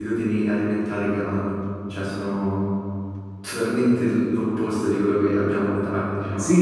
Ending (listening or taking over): taking over